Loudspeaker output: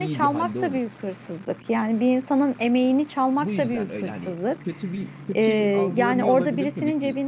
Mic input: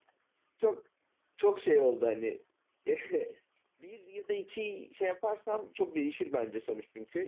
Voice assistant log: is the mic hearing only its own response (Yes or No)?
No